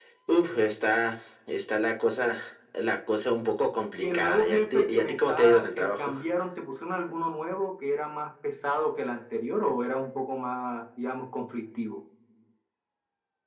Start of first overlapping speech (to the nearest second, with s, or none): 4 s